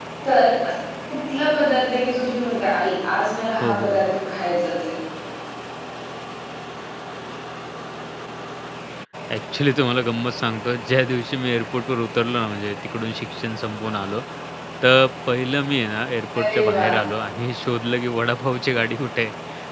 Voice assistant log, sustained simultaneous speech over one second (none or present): none